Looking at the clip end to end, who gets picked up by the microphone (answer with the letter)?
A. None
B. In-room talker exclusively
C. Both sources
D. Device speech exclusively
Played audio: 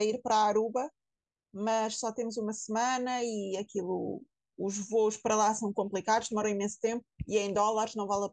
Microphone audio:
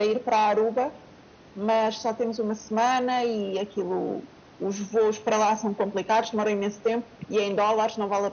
D